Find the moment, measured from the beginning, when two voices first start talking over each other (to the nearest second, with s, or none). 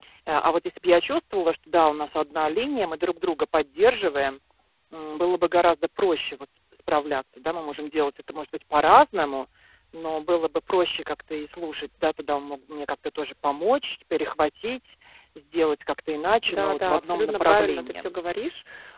16 s